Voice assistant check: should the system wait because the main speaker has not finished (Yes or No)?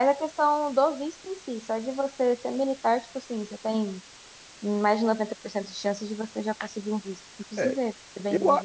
No